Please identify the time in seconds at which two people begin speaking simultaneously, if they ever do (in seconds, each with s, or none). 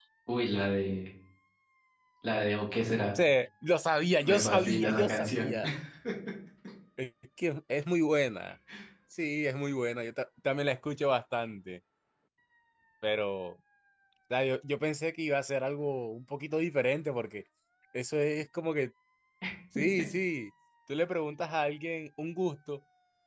4.2 s